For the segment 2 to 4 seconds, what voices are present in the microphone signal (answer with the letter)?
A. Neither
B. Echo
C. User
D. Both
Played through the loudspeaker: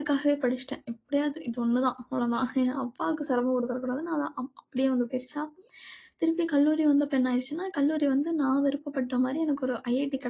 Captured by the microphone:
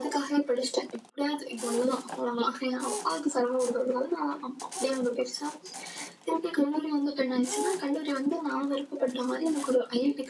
B